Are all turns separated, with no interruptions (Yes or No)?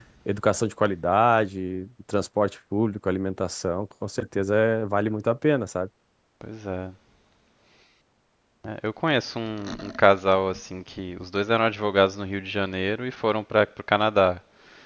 Yes